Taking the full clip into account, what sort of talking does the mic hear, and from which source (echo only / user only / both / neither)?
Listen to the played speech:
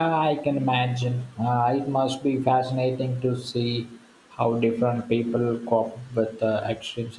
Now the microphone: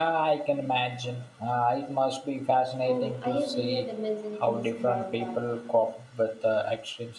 both